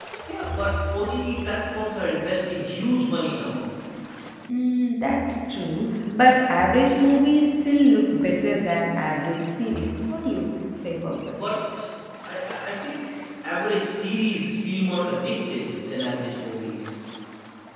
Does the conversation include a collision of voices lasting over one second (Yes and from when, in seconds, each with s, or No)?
No